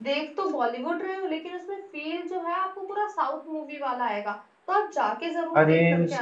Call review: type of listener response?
taking over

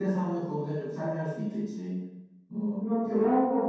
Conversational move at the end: taking over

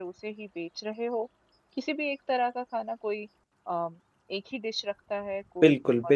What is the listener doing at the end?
taking over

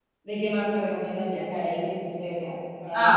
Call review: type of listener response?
taking over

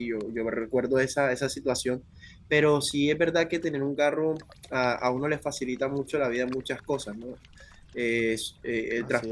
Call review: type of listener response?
listening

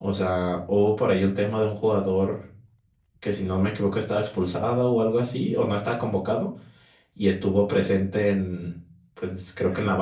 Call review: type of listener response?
listening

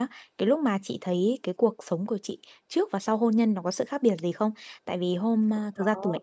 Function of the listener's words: listening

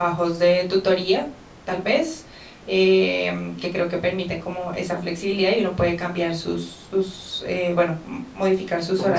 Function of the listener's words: taking over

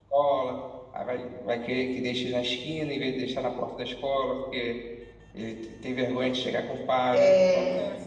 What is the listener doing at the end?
listening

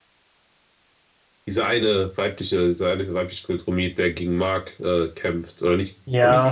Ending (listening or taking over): taking over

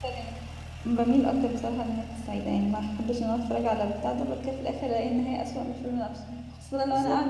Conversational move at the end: listening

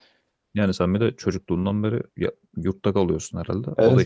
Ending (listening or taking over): taking over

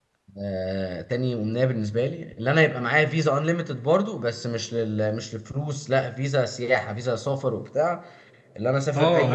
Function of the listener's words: listening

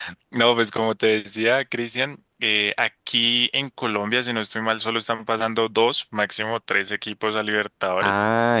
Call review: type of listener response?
taking over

